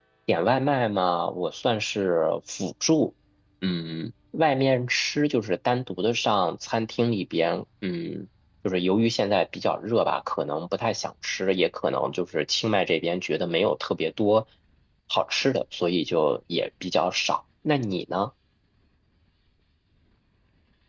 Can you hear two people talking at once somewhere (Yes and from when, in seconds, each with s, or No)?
No